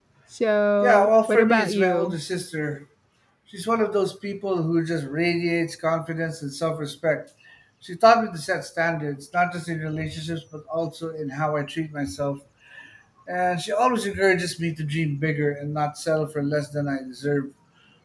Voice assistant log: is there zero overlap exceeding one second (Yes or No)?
No